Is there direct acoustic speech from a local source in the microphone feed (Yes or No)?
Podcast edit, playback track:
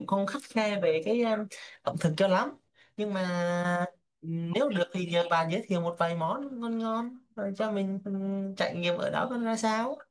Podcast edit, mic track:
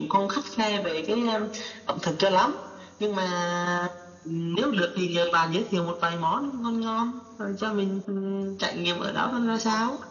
Yes